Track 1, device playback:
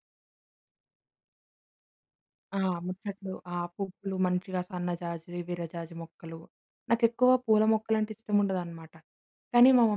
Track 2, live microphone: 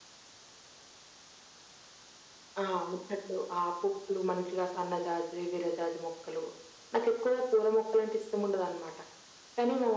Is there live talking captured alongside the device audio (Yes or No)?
No